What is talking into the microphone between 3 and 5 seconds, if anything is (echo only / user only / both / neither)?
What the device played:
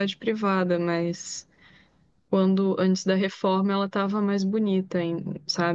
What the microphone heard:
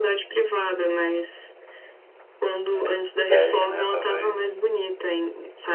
both